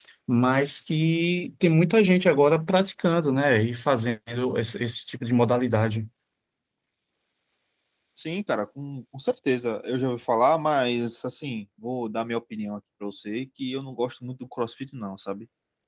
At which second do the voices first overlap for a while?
none

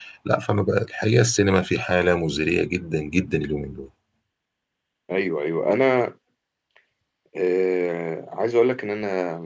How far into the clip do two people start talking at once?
none

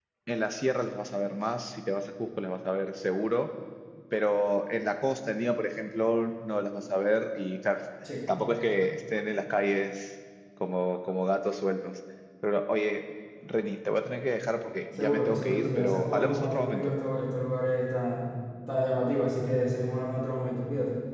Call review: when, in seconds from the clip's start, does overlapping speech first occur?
14.9 s

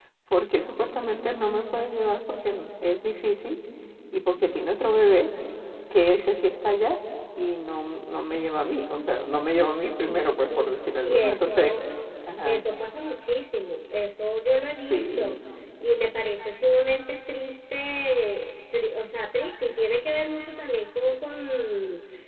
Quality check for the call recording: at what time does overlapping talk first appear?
10.0 s

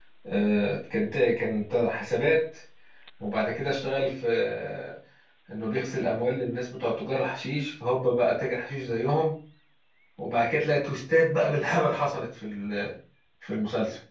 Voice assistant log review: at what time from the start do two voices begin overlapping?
none

